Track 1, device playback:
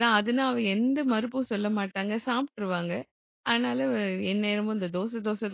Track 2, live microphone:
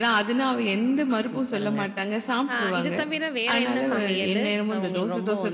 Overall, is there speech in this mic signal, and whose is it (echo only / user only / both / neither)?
both